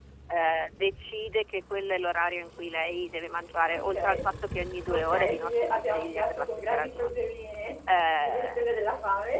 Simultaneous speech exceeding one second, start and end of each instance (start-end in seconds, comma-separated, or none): 4.9-7.2